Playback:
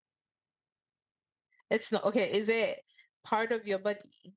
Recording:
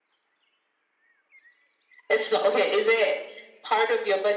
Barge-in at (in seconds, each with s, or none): none